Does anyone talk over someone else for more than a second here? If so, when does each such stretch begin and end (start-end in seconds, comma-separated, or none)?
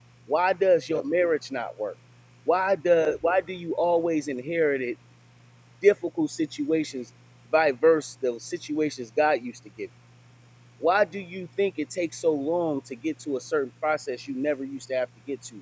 none